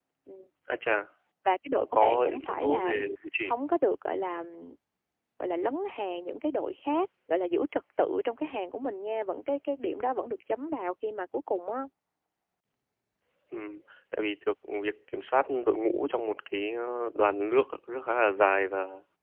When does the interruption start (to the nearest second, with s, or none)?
2 s